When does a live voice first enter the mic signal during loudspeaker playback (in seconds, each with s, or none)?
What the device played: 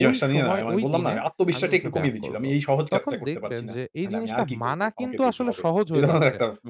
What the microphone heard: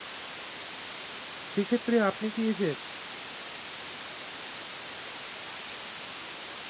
1.5 s